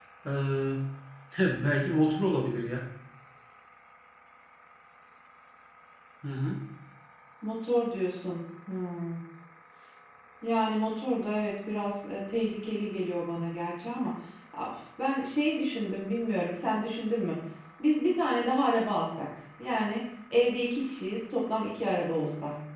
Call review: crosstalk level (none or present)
none